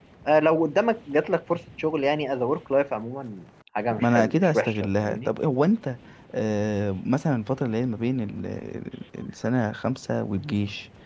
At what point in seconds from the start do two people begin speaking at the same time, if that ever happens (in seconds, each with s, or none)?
3.9 s